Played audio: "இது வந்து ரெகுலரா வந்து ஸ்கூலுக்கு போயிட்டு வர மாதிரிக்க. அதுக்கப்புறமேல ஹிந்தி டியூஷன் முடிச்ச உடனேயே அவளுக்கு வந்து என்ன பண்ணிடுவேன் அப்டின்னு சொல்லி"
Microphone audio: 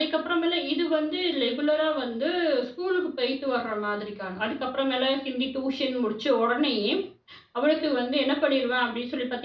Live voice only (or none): none